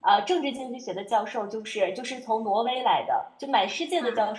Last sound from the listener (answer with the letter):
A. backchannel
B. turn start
A